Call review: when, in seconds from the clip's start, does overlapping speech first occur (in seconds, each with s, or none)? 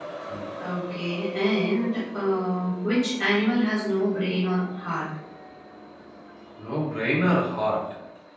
none